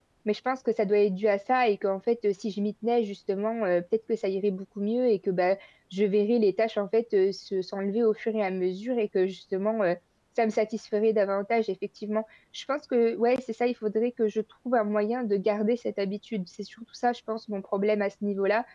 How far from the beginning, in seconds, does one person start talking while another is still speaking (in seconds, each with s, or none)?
none